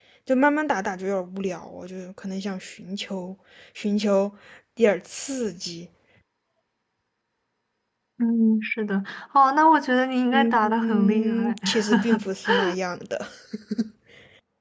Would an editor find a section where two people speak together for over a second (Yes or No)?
Yes